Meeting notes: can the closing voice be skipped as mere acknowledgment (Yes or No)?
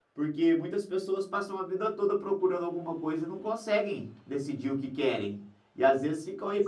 Yes